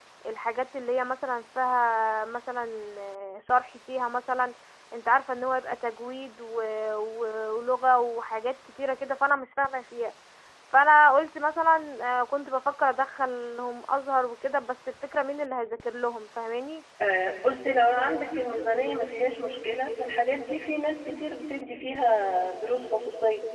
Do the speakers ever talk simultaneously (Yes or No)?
No